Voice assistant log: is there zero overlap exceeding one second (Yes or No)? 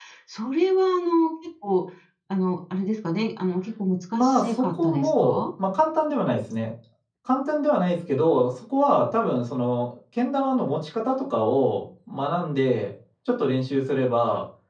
No